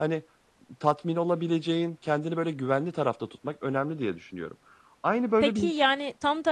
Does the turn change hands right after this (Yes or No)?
Yes